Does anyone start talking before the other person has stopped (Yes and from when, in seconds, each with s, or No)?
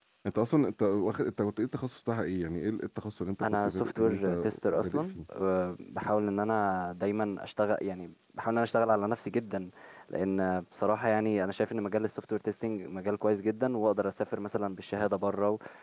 Yes, from 3.4 s